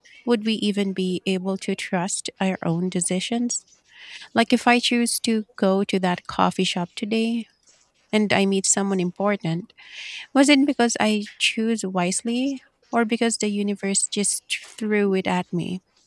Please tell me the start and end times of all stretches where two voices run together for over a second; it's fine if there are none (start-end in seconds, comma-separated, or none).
none